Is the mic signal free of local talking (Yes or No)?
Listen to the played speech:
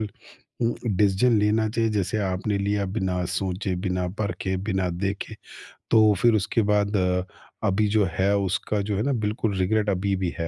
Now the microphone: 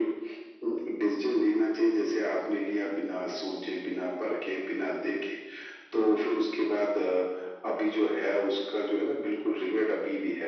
Yes